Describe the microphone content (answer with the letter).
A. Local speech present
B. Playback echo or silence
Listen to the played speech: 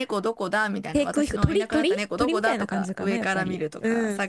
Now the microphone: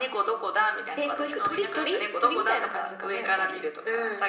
B